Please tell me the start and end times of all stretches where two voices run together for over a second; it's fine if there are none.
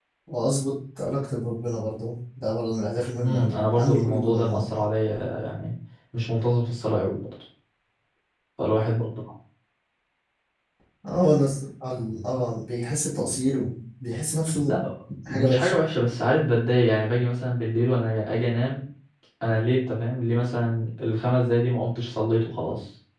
3.2-4.8

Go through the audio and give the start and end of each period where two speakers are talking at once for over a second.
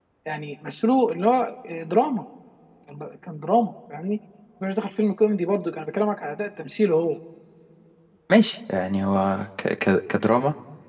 none

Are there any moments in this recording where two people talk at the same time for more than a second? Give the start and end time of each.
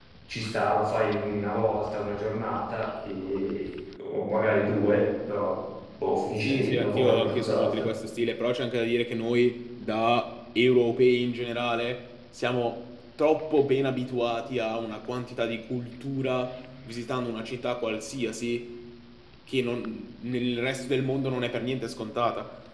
6.4-7.9

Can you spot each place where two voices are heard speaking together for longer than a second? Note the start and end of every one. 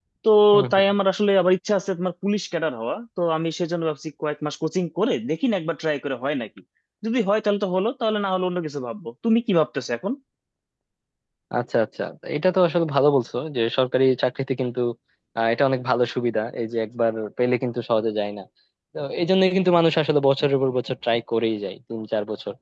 none

